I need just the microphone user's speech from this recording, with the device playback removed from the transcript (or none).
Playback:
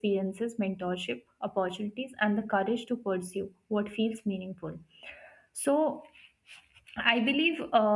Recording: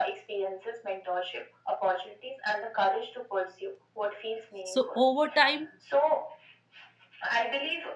So over time,